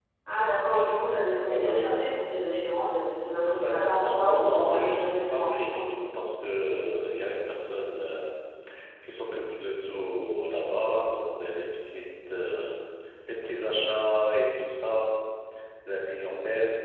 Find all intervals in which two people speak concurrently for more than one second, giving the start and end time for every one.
3.6-5.8

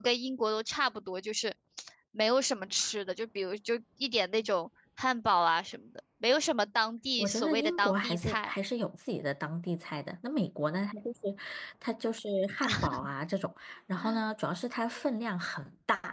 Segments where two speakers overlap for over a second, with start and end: 7.2-8.5

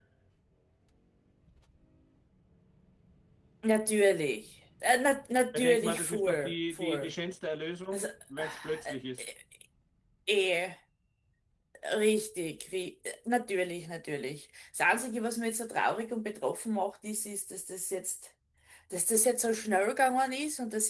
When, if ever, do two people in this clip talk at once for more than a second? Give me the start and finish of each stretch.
5.5-7.1

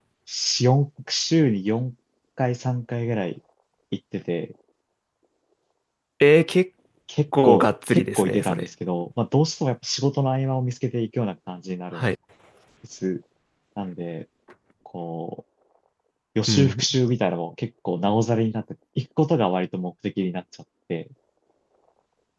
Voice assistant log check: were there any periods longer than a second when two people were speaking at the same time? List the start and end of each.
7.4-8.7

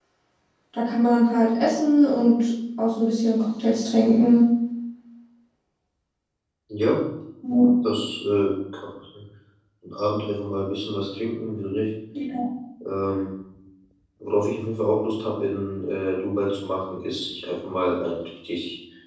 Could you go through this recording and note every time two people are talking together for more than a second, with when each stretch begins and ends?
none

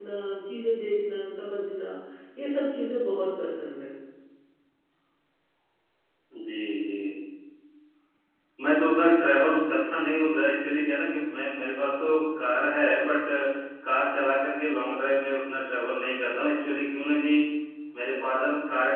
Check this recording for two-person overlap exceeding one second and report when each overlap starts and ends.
none

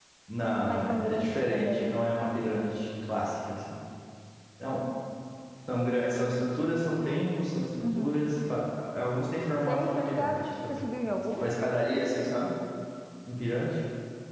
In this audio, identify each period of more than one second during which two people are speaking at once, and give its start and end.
0.7-1.9, 9.6-10.8

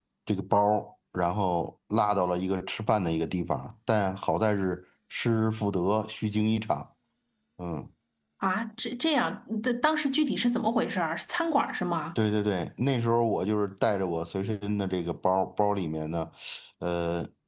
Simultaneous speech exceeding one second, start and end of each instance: none

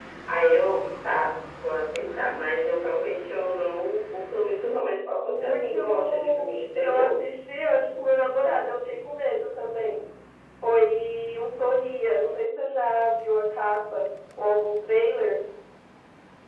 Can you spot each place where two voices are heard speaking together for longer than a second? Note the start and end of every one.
5.3-7.2

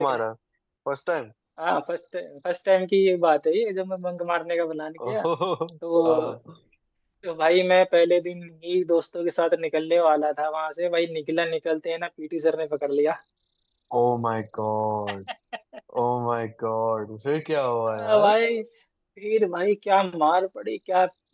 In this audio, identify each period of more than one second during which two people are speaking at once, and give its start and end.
none

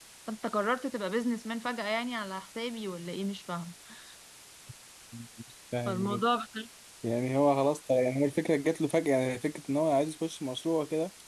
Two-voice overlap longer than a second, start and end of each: none

